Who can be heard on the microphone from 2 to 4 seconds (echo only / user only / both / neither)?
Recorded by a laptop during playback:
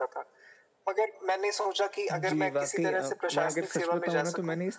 both